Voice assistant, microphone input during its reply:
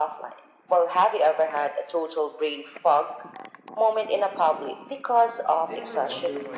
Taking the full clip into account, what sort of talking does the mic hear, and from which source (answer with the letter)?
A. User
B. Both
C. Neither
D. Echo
B